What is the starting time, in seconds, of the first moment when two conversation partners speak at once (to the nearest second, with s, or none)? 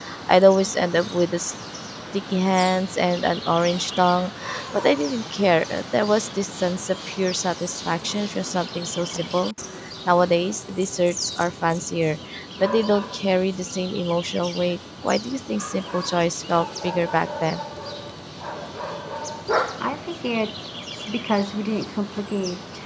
none